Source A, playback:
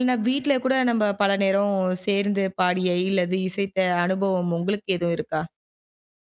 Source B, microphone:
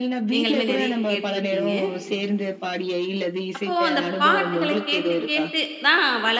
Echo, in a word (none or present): present